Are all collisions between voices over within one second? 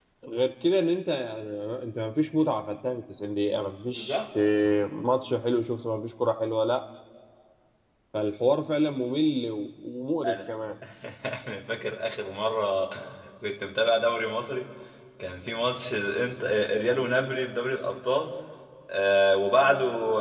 Yes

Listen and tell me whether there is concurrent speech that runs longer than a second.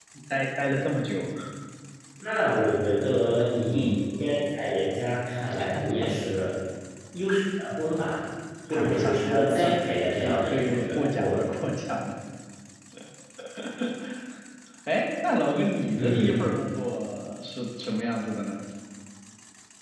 Yes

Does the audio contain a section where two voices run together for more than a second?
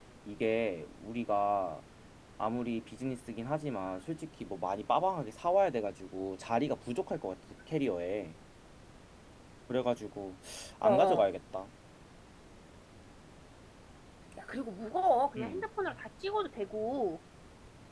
No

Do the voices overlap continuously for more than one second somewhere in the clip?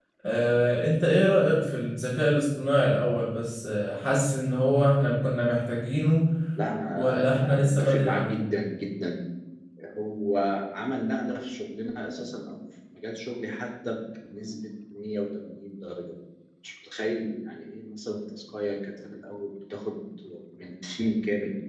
Yes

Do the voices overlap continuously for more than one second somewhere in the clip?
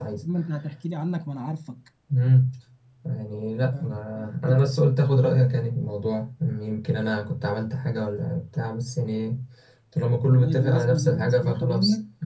Yes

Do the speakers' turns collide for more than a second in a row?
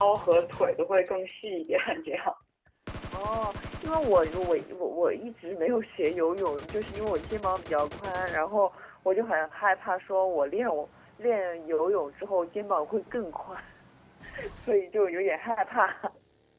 No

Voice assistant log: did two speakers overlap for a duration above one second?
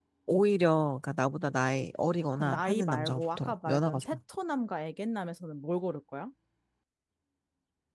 Yes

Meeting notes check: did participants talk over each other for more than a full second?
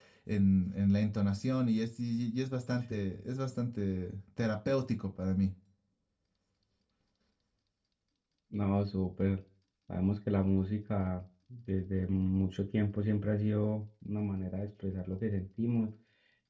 No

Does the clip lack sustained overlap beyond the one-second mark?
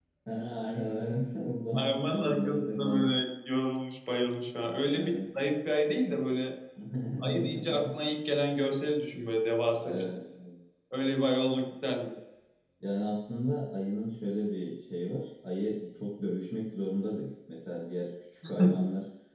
No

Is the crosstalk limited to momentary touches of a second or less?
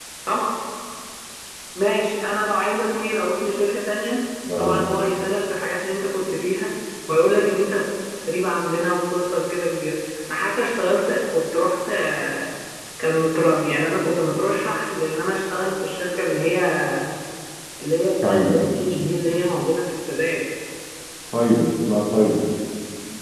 Yes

